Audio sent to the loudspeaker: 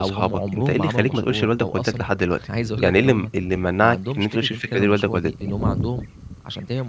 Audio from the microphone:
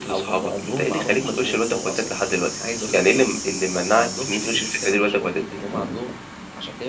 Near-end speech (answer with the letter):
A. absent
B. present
A